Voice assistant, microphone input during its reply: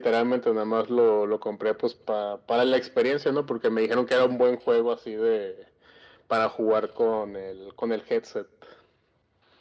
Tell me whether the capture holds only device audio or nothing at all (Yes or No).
Yes